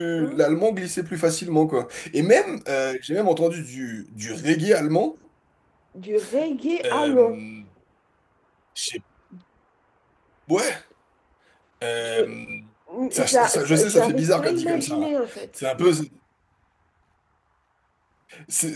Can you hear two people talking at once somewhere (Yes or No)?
Yes